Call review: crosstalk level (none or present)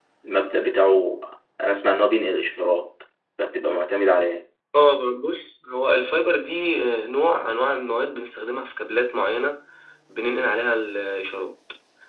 none